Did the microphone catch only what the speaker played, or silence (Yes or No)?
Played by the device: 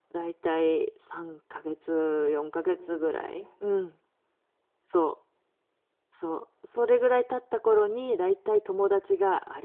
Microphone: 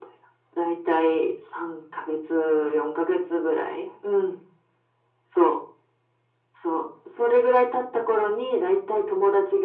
Yes